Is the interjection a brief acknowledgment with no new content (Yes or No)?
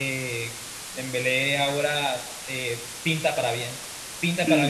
Yes